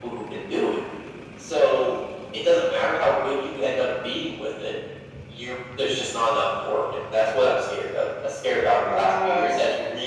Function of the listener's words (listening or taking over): listening